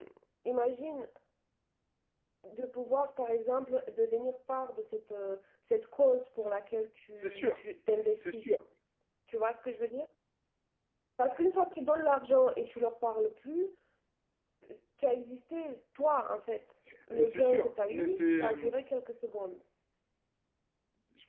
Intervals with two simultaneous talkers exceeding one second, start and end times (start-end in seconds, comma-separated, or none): 17.1-18.5